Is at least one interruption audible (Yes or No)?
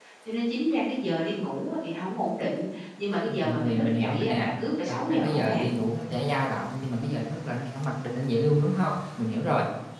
Yes